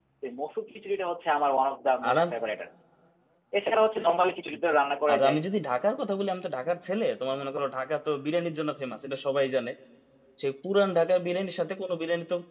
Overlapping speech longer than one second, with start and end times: none

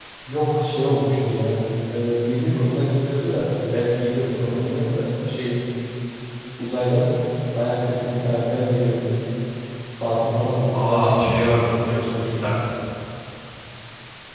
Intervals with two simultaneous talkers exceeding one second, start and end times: 10.7-12.4

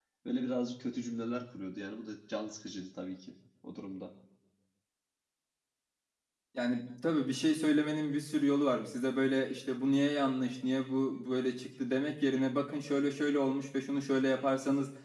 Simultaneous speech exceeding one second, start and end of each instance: none

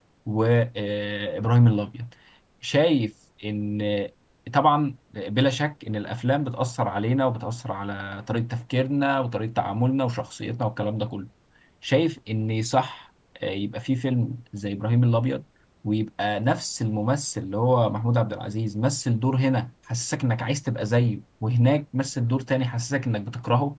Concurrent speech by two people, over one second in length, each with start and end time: none

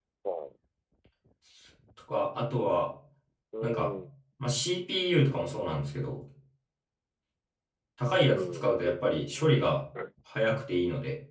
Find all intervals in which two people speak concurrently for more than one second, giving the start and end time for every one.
8.3-9.6

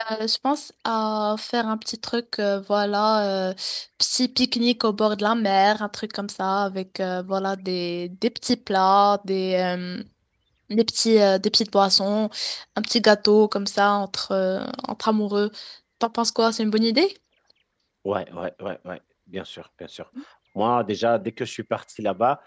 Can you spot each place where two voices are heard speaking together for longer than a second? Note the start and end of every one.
none

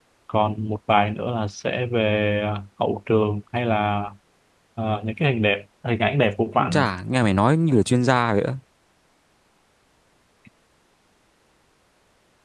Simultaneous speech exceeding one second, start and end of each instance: none

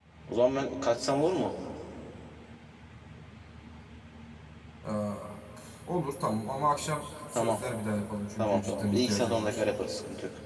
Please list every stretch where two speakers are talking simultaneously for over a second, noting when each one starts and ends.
8.4-9.6

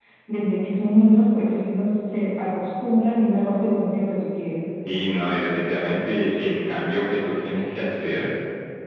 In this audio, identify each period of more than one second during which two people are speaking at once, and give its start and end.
none

